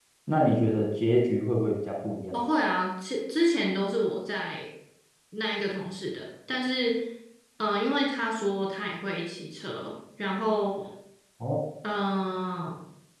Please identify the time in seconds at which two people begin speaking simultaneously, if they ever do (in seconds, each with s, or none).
none